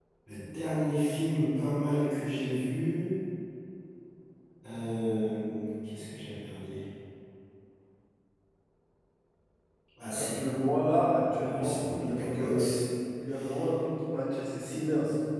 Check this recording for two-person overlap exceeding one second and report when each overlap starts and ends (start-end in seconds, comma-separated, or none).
11.4-12.8